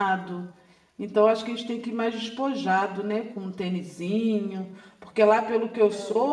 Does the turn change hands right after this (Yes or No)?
No